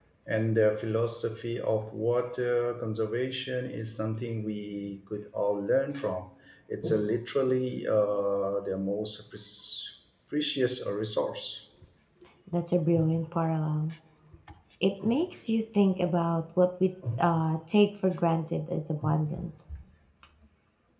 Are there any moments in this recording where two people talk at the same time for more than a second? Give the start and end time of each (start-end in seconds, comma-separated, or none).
none